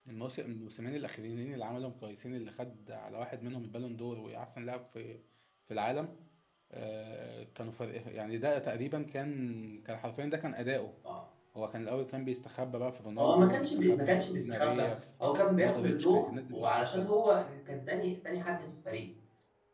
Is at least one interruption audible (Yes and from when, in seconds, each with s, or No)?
Yes, from 13.2 s